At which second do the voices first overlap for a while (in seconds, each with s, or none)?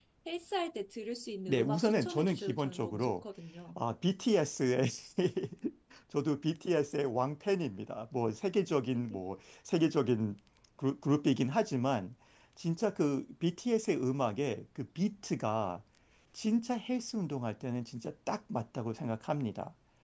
1.5 s